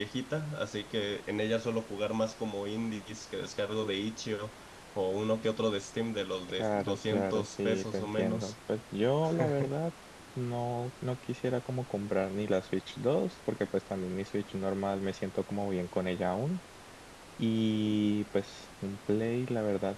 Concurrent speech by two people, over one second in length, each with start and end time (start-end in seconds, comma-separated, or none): 6.6-8.5